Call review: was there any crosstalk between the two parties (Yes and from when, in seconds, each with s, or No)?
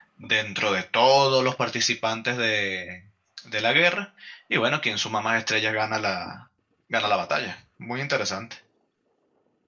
No